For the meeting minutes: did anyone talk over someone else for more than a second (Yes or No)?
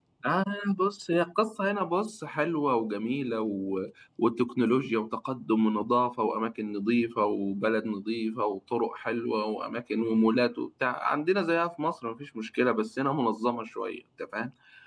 No